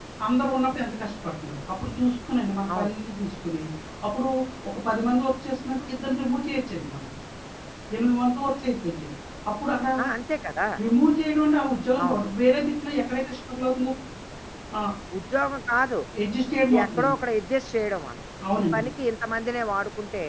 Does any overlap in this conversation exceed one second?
No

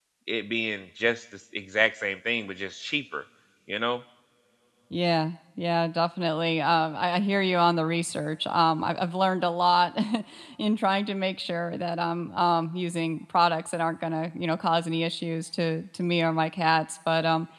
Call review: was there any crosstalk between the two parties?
No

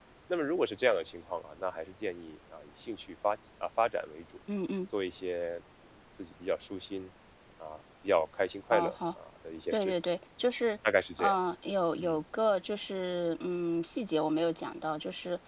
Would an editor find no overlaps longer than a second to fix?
Yes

